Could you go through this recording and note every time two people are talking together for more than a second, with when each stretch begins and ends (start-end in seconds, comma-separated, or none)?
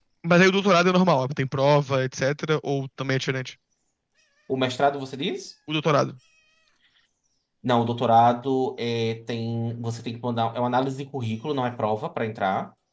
none